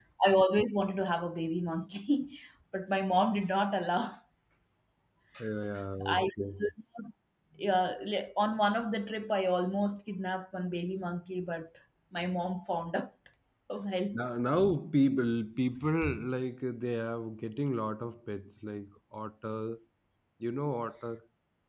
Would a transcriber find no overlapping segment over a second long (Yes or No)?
Yes